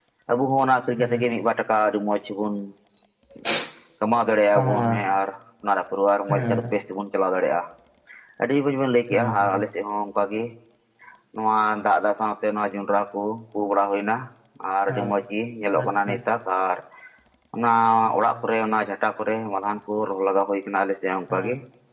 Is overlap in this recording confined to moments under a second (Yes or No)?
Yes